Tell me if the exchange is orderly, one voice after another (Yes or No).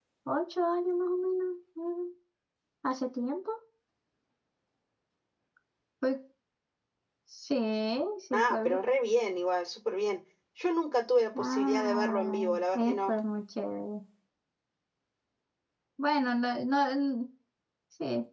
No